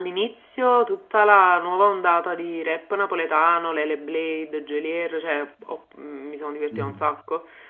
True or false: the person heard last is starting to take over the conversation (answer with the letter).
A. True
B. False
B